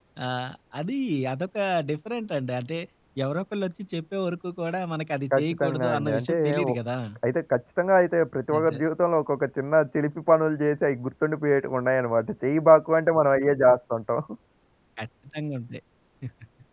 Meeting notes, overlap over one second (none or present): present